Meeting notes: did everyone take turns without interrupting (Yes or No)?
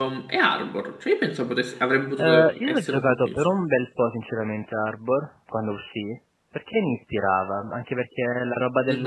No